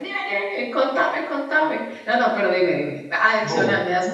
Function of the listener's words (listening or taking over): listening